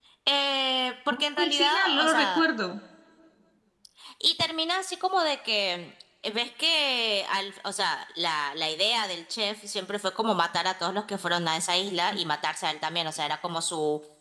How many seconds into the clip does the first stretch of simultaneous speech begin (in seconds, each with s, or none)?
1.1 s